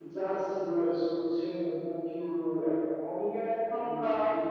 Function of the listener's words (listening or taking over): listening